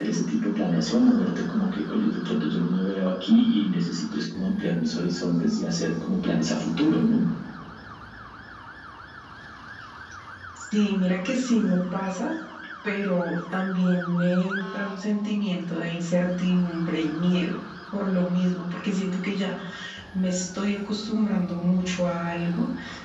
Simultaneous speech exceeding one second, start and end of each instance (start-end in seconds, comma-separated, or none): none